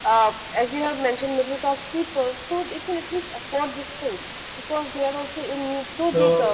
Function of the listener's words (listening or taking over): taking over